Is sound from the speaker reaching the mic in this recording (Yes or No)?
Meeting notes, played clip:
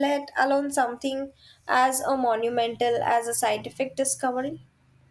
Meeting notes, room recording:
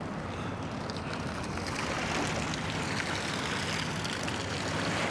No